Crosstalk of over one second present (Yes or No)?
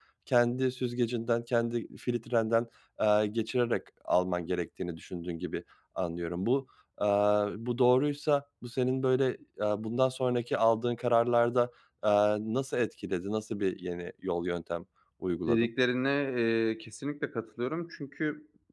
No